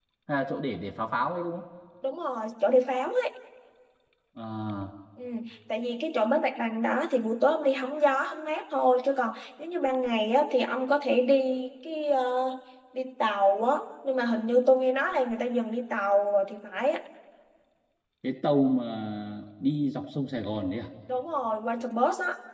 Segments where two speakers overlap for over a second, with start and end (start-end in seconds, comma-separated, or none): none